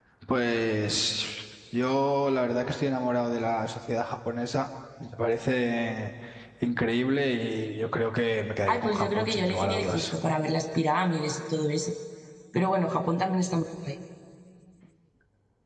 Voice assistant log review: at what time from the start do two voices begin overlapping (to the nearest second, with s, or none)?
9 s